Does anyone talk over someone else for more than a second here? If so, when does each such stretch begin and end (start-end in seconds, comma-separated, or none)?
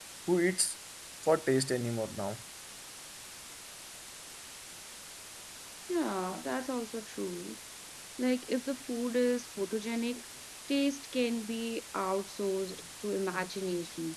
none